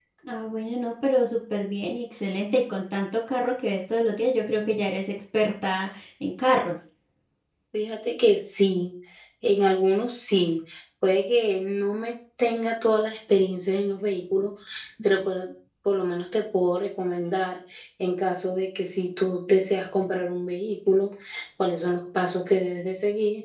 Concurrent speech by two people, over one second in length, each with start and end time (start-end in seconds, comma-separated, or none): none